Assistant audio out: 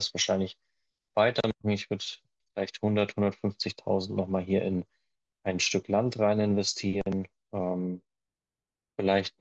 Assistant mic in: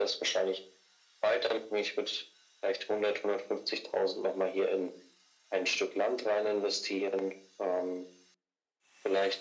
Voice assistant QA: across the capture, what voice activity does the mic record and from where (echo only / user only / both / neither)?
echo only